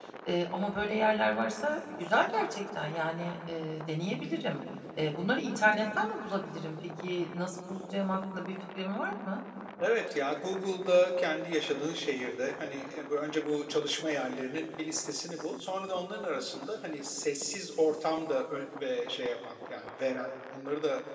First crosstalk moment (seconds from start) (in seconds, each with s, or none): none